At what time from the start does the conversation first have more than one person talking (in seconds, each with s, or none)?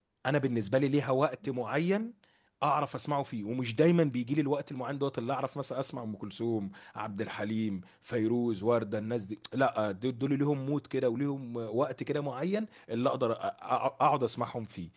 none